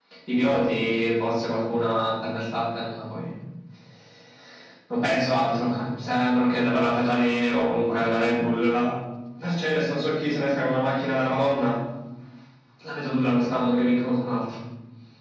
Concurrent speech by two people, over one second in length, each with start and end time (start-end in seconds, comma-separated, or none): none